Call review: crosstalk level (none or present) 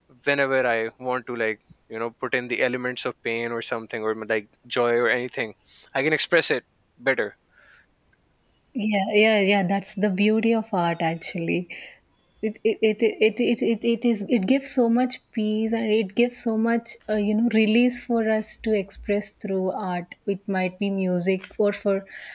none